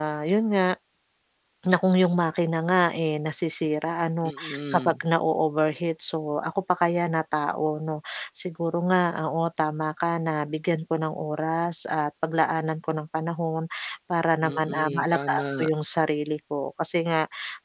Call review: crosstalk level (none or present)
present